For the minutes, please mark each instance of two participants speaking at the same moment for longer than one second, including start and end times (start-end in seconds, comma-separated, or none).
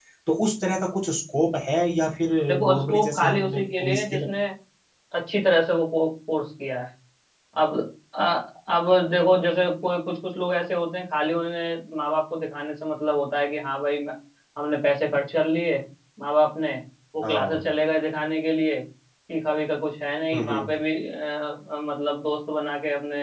2.7-4.2